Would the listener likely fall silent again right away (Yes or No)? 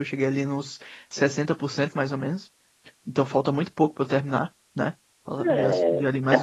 No